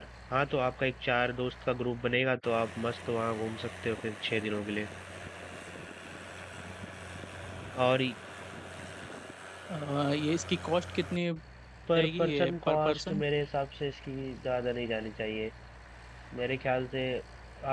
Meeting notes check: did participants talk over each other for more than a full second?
Yes, from 11.9 s

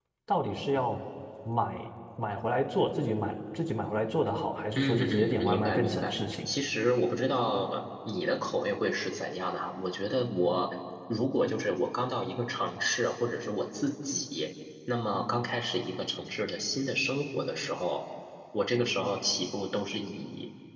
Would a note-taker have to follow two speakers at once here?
Yes, from 4.8 s

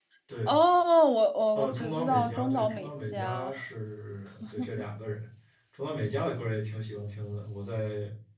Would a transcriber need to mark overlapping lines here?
Yes, from 1.6 s

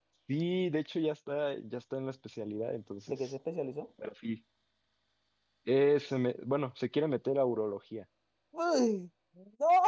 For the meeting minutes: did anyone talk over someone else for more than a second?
No

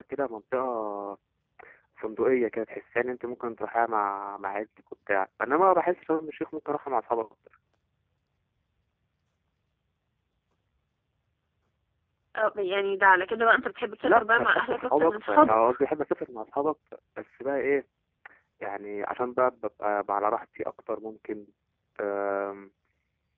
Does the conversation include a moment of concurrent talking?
Yes, from 14.0 s

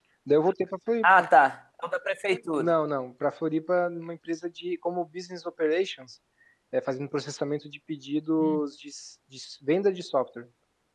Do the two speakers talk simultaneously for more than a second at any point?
No

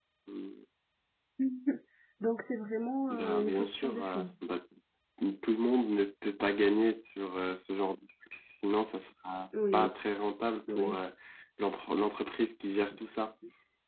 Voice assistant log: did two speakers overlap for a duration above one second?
Yes, from 3.1 s

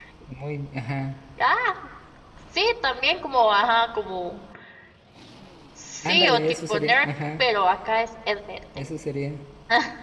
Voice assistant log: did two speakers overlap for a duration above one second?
Yes, from 6.0 s

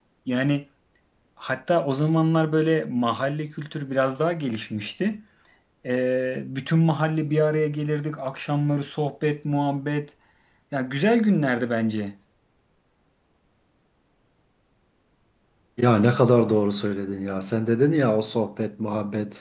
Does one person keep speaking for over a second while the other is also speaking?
No

